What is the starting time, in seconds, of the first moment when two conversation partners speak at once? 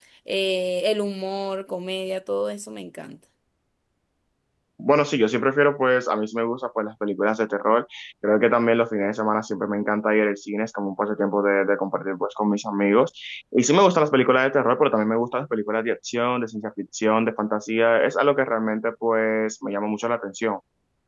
none

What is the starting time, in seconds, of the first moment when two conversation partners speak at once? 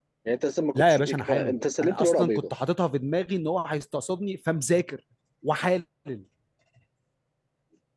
0.8 s

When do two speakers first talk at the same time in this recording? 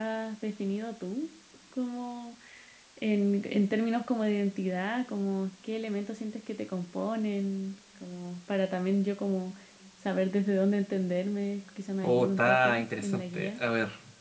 12.0 s

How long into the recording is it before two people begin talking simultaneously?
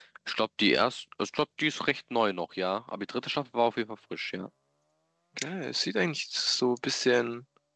none

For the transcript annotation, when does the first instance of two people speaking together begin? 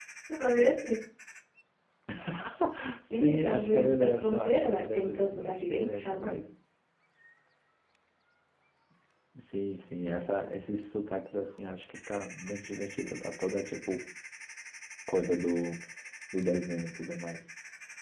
3.1 s

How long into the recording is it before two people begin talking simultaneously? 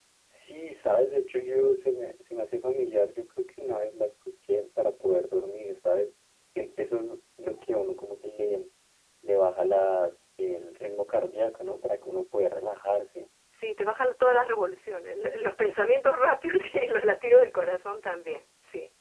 none

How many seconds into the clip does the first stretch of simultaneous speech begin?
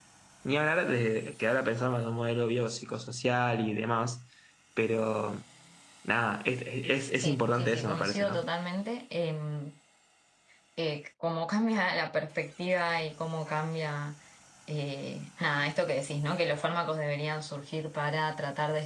7.2 s

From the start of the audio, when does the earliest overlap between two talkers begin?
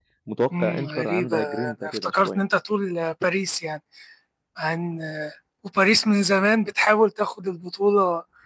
0.6 s

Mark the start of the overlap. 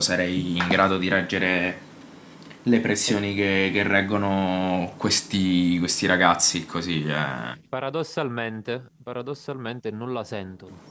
none

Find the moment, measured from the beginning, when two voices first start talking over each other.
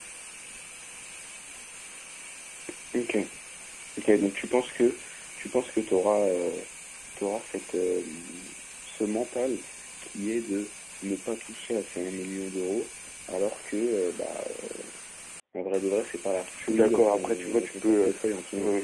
16.6 s

